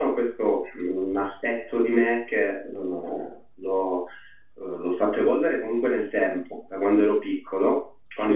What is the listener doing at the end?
listening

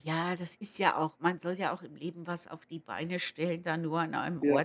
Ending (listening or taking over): listening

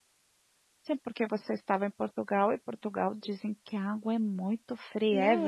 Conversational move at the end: taking over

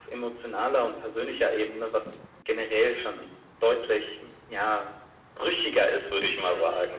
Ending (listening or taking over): taking over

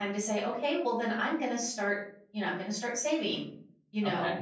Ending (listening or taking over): listening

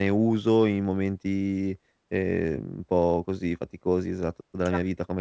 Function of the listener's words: listening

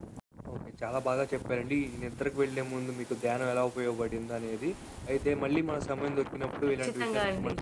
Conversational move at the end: listening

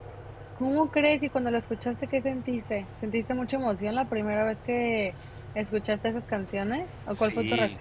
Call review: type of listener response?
taking over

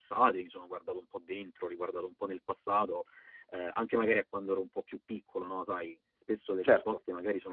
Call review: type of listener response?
listening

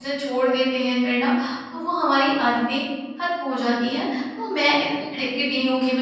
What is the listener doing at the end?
listening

